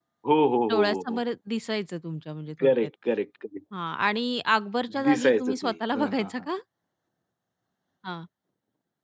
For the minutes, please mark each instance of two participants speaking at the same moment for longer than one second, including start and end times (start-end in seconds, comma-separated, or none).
5.1-6.3